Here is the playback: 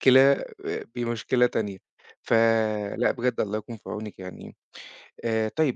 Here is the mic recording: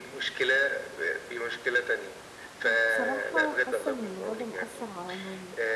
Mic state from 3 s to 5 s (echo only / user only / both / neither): both